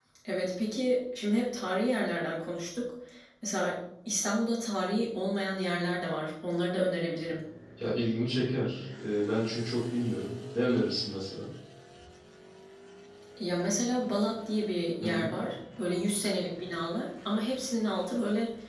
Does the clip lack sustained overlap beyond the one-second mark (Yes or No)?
Yes